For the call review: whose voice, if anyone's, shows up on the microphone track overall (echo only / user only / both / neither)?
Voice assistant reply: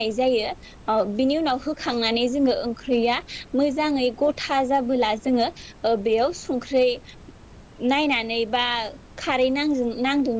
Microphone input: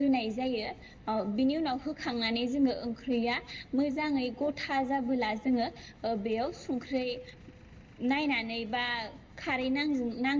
echo only